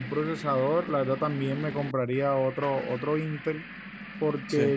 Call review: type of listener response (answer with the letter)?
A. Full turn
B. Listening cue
B